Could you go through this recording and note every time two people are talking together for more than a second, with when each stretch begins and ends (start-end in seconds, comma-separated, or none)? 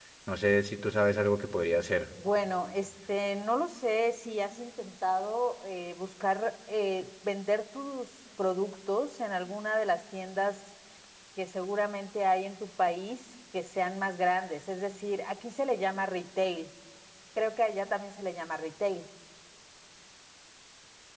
none